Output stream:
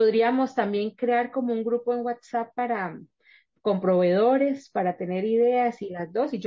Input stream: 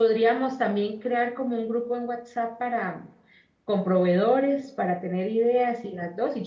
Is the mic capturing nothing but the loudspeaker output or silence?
Yes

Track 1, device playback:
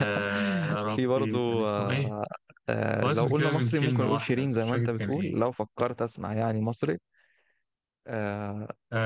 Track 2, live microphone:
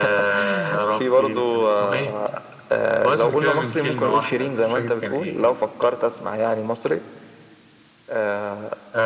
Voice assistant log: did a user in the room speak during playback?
No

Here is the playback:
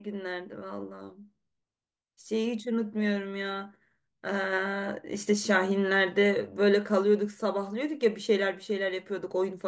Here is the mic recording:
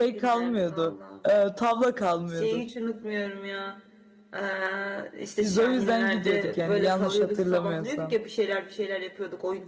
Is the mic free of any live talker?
No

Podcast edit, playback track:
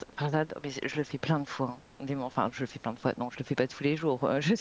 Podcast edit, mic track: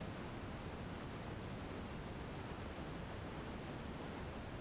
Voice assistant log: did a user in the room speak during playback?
No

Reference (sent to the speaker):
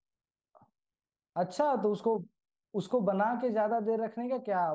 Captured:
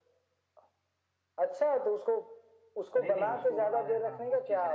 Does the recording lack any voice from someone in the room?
No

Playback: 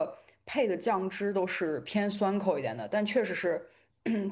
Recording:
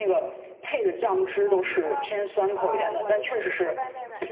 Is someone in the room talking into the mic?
Yes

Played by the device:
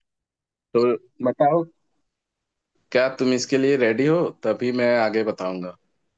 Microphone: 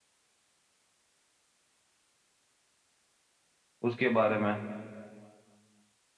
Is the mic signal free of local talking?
No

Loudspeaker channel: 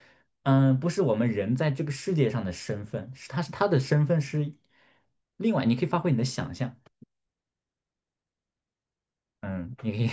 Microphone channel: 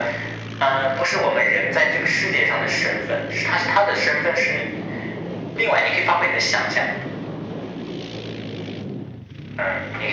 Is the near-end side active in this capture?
No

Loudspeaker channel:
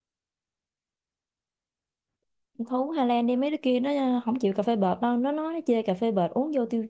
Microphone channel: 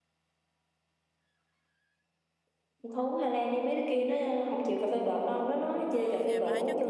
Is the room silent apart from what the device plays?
No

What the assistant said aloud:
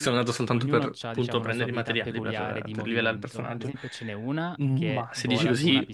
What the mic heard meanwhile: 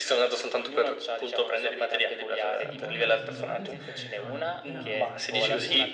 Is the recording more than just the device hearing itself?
Yes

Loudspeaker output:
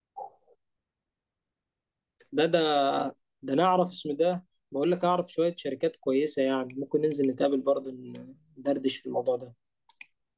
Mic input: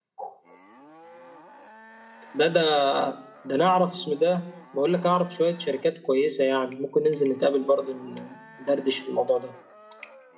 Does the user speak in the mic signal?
No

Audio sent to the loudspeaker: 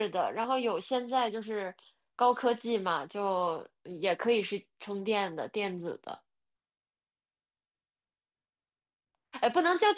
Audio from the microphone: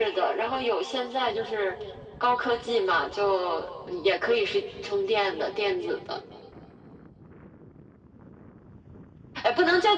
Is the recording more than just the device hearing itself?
No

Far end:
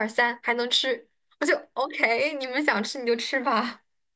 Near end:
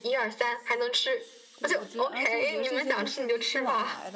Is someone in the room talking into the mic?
Yes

